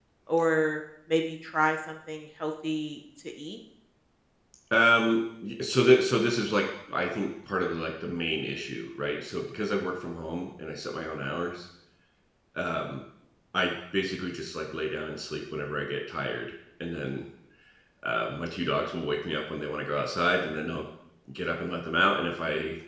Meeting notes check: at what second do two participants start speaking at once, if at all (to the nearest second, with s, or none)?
none